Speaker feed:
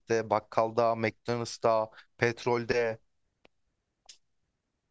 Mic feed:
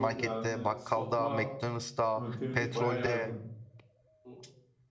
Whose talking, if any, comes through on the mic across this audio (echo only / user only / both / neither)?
both